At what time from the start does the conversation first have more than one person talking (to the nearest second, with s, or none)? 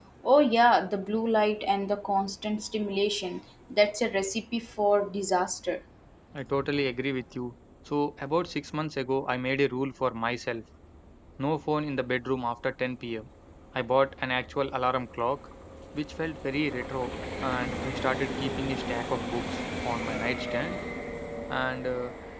none